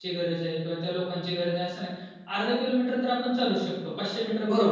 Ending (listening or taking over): taking over